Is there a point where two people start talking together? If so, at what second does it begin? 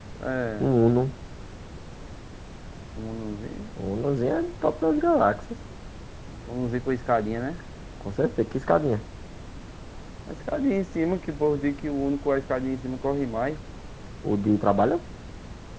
none

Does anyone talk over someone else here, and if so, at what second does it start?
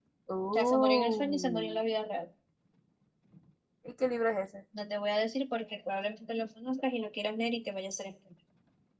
0.5 s

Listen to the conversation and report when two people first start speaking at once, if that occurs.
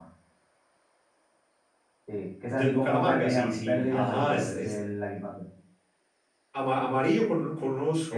2.5 s

